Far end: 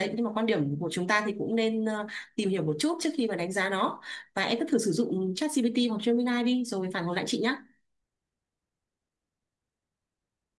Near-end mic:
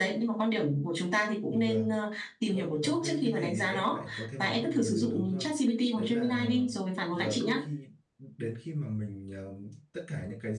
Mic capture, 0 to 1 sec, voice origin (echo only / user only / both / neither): echo only